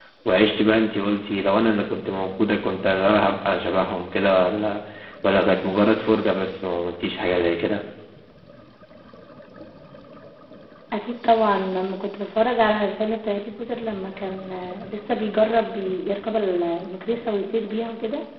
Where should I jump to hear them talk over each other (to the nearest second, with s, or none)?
none